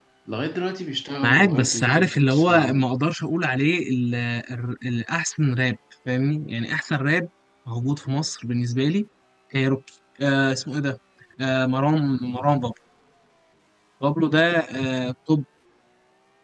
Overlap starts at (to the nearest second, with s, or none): 1 s